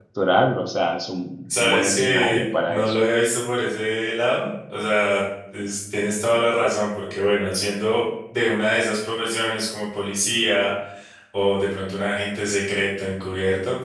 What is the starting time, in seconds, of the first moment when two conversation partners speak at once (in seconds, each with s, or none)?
1.4 s